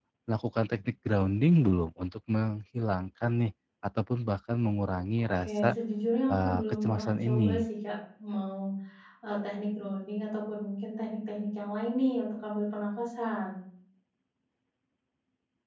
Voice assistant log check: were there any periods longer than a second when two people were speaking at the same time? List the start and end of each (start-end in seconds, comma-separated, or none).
6.3-7.6